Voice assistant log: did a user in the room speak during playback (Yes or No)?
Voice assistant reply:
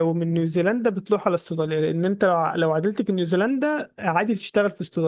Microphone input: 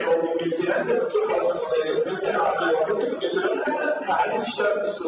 No